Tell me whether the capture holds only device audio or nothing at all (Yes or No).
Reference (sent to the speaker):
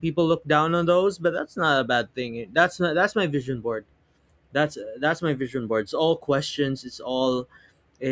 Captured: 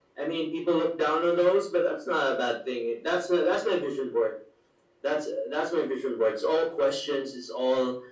Yes